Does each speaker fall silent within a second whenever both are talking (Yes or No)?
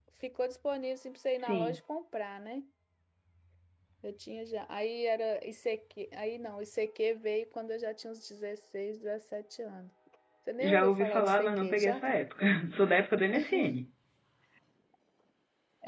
No